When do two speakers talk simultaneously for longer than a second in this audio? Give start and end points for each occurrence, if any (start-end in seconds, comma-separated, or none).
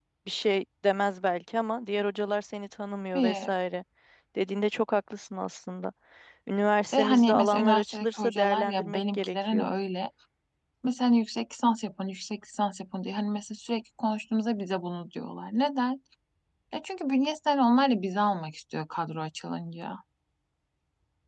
6.9-9.7